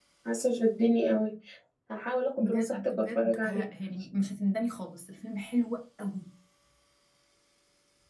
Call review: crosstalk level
present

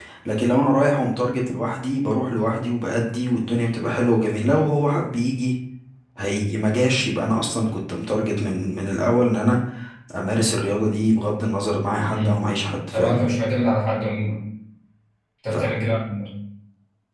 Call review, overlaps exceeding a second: none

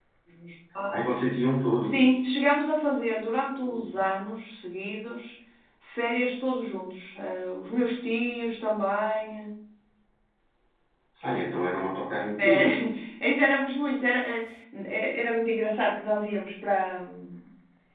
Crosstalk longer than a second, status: none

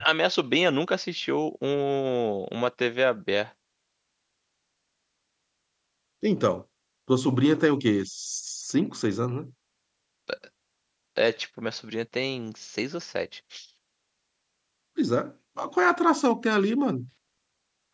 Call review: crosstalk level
none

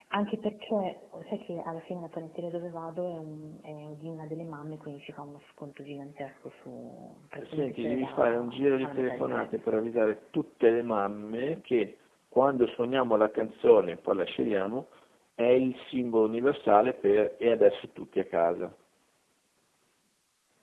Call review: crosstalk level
present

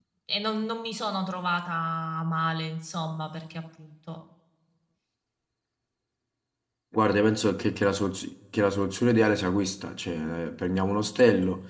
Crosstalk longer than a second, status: none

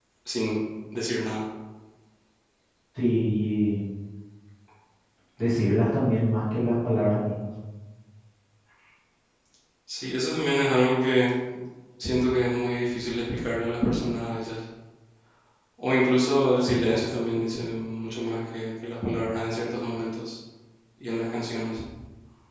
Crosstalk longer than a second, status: none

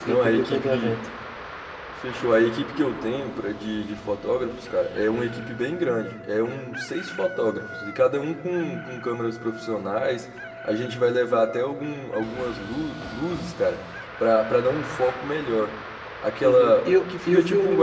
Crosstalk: present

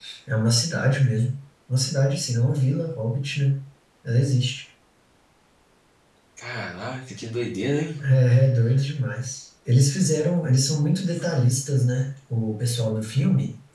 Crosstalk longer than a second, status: none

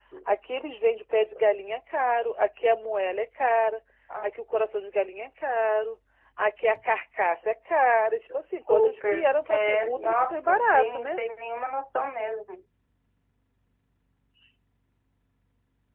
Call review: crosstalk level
present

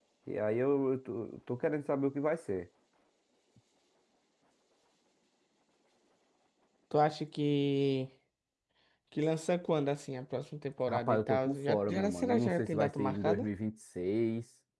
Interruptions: present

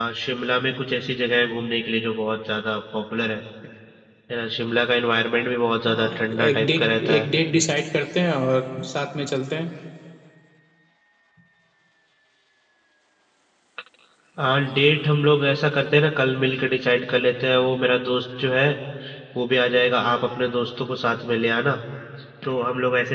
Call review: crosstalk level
present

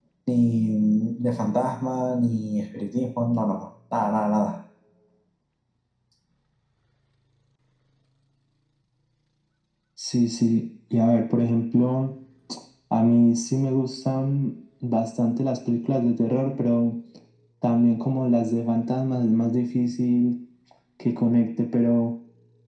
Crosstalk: none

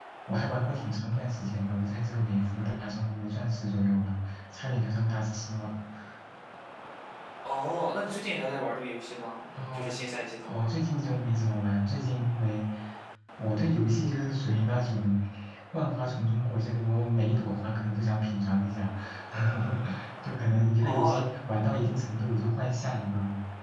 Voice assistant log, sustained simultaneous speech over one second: none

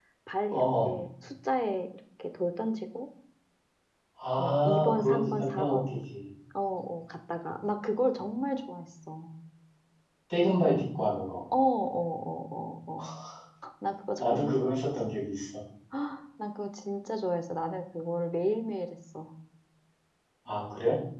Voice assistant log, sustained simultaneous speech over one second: present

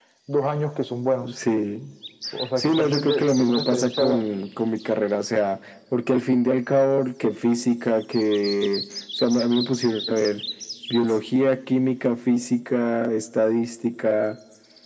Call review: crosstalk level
present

